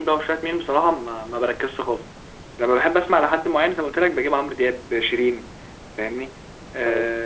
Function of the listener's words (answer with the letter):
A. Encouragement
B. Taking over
A